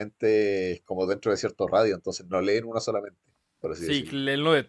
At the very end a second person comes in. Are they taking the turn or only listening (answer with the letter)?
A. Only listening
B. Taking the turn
B